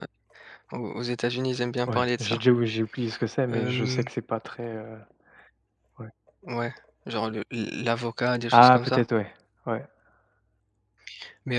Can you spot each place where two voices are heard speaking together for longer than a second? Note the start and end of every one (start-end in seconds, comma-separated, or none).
none